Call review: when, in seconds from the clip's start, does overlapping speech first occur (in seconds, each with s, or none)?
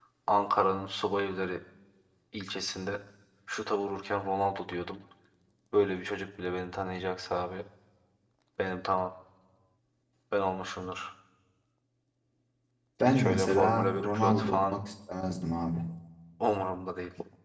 13.0 s